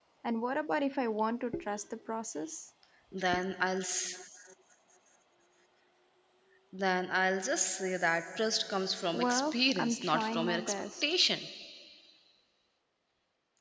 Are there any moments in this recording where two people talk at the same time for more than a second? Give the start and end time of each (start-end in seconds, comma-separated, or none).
9.1-11.0